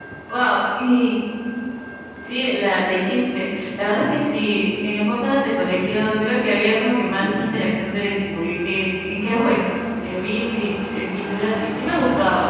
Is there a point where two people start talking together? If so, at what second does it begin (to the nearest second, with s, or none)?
none